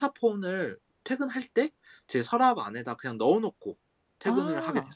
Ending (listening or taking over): taking over